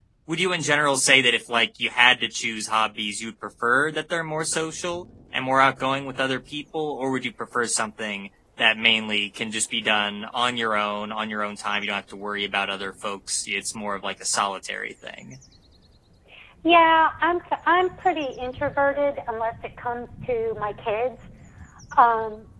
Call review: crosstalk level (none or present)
none